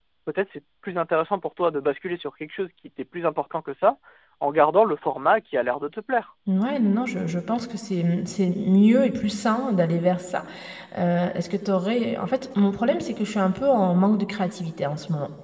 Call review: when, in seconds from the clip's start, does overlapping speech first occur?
none

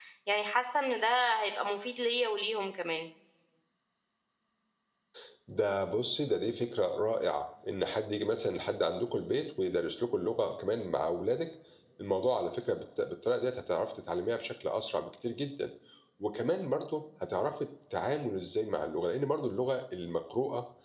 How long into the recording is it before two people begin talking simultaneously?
none

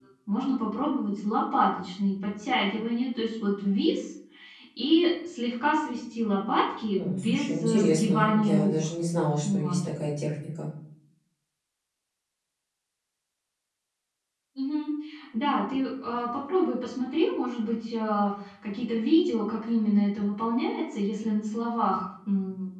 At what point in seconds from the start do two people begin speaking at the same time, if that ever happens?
7 s

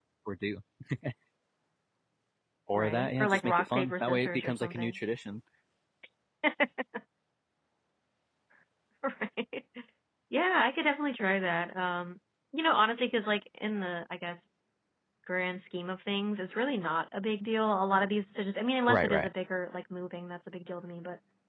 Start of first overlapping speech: 3 s

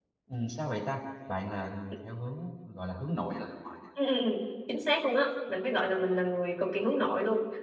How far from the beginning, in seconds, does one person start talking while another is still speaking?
none

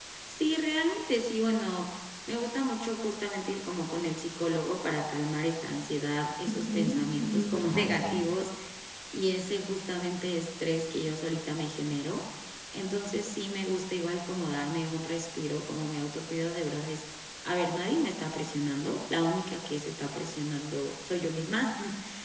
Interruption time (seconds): 6 s

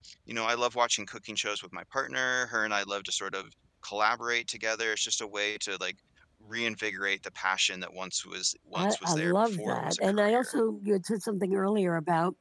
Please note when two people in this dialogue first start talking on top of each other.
9 s

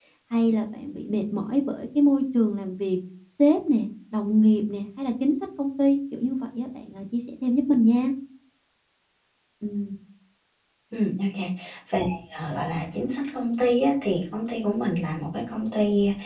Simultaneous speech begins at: none

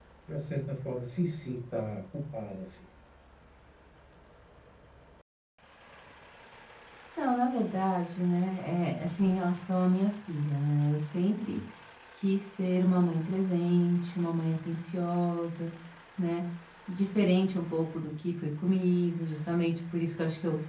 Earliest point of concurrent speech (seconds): none

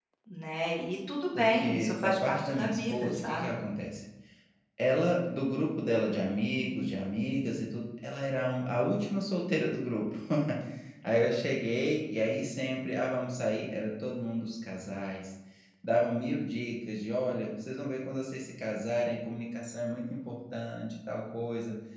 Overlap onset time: 1 s

